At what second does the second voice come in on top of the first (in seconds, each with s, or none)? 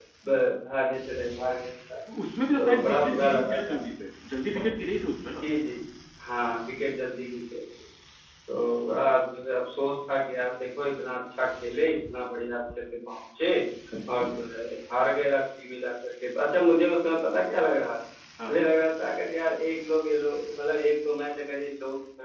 2.6 s